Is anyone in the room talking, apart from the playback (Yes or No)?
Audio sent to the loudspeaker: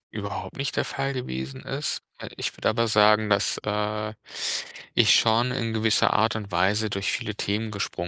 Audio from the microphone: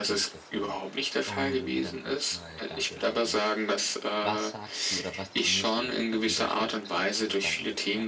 Yes